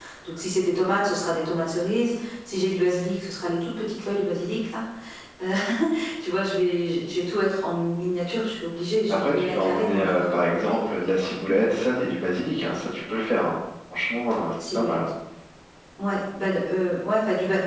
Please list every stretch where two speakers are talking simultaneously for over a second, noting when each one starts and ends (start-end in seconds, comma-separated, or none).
9.1-10.8